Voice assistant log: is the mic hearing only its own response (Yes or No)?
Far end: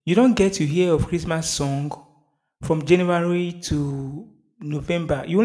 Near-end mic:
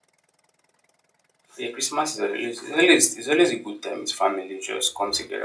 No